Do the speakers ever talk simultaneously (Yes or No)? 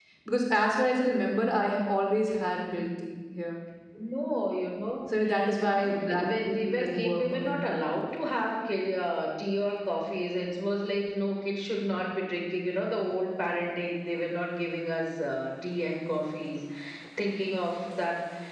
Yes